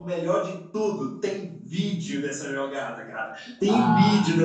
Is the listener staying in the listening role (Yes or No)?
Yes